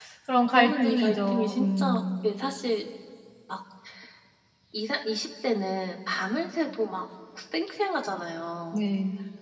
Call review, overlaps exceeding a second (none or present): present